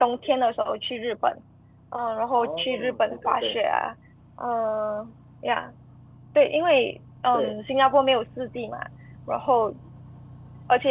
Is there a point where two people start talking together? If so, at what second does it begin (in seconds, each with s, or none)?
2.3 s